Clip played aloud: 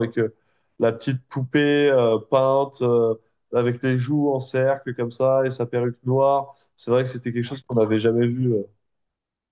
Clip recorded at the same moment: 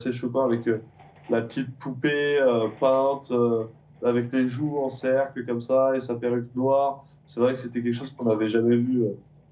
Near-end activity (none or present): none